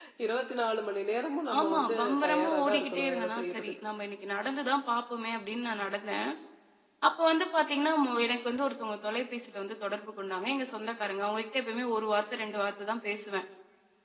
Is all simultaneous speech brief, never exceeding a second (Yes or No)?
No